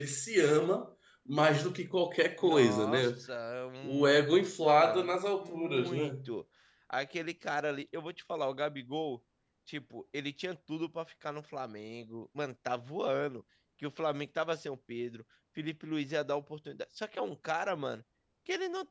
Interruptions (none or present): present